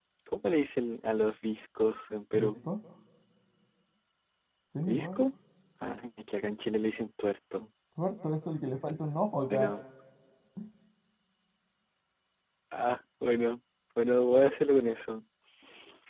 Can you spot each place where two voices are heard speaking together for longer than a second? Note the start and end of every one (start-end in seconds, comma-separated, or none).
none